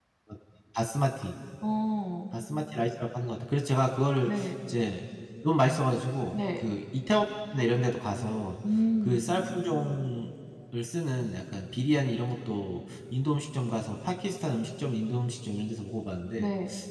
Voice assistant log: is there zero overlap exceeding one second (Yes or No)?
Yes